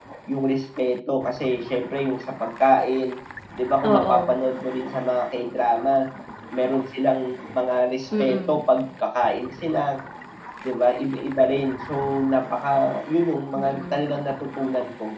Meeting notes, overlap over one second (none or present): none